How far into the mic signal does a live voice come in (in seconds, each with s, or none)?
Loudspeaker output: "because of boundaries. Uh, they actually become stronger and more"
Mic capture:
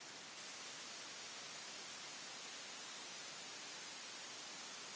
none